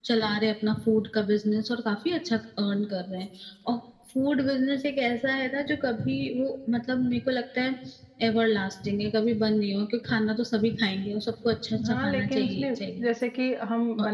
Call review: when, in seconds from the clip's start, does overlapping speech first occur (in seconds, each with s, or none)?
11.7 s